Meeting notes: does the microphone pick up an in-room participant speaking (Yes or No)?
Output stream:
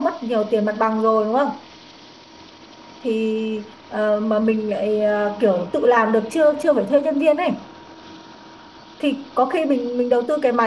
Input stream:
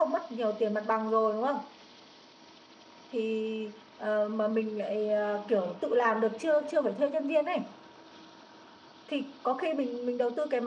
No